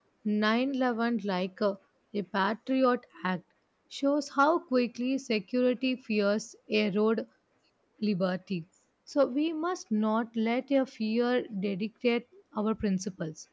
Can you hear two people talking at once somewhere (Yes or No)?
No